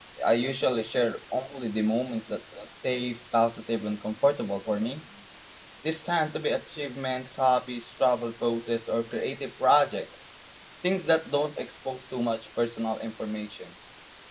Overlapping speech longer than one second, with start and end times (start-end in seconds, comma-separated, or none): none